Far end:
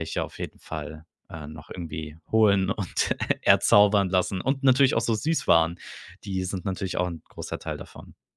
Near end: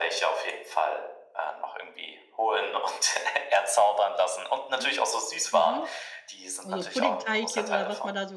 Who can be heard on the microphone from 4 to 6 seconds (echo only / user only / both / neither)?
both